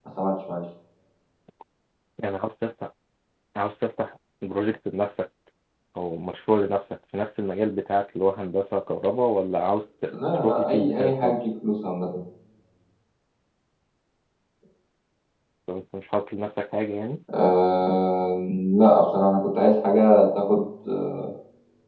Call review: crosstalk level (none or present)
present